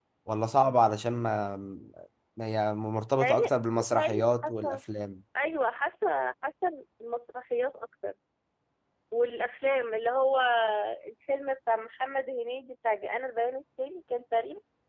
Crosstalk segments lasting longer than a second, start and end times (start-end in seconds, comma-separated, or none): 3.2-4.8